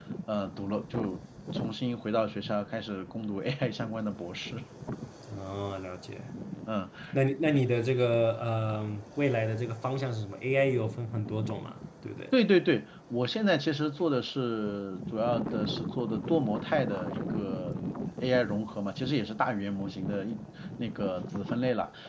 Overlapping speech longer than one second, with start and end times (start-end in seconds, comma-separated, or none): none